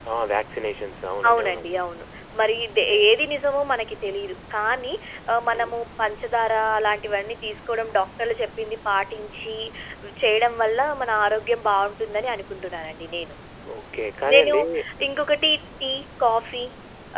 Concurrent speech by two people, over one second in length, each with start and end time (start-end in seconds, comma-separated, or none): none